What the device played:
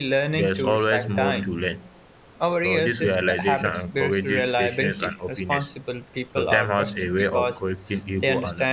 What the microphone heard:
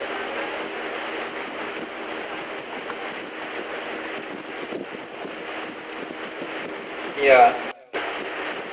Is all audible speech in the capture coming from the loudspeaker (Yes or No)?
No